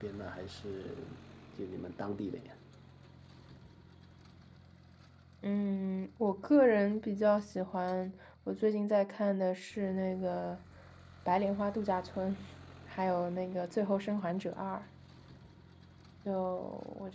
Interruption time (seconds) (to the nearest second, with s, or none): none